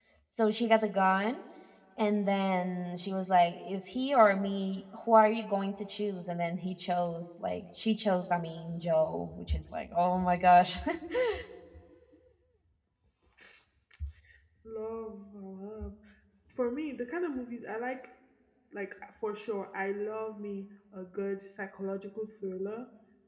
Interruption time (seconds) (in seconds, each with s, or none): none